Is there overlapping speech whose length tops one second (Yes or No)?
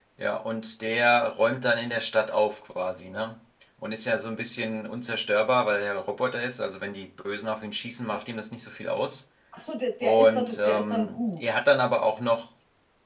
Yes